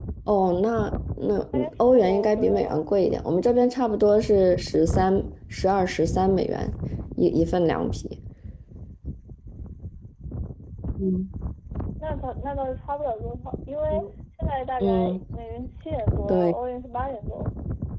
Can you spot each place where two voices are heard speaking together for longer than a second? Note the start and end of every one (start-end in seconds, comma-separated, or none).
1.5-2.8